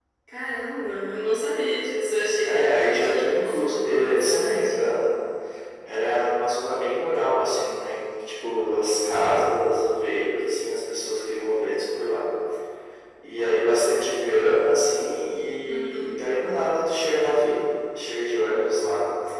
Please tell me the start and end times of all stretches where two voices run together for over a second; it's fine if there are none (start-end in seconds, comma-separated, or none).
2.5-4.7